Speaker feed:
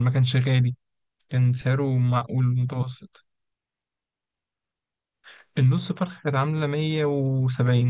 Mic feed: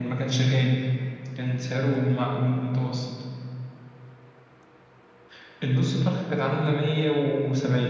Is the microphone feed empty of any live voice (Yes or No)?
Yes